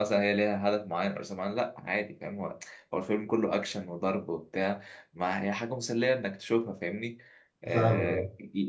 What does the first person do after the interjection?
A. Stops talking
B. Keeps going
B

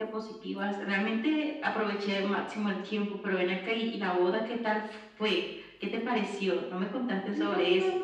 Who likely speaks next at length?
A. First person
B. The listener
B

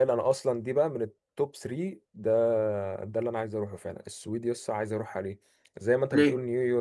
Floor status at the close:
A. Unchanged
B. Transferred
A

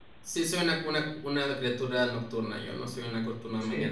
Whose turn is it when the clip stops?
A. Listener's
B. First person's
A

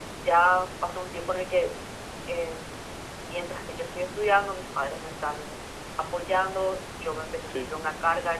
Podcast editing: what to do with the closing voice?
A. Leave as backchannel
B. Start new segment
A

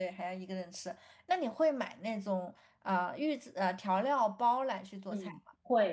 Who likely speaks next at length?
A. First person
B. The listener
B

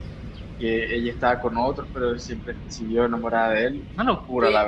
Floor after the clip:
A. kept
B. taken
B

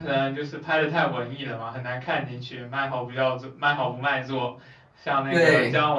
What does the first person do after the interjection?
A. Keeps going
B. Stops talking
A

